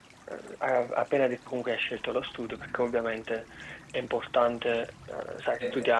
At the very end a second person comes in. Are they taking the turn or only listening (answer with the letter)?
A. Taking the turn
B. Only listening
B